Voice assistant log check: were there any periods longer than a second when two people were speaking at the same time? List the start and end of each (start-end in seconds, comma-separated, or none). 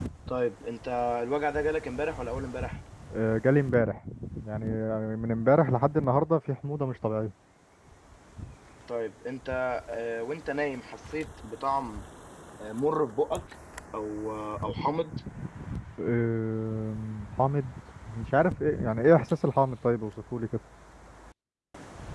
none